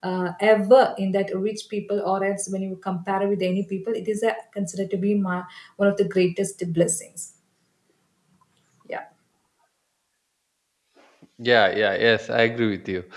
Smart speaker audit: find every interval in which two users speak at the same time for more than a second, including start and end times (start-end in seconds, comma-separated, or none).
none